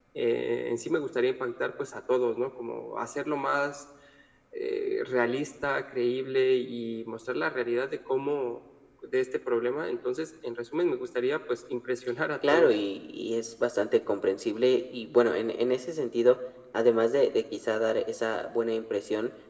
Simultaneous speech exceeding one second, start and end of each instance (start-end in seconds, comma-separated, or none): none